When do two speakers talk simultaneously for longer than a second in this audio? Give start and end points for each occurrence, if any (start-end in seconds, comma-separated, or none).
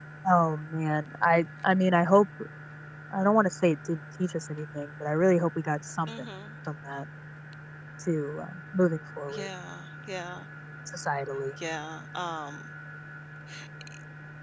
none